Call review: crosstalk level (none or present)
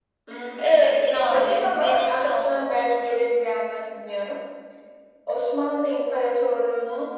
present